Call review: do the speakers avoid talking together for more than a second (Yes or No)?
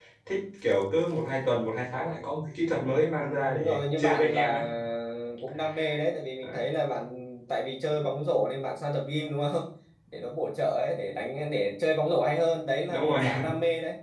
No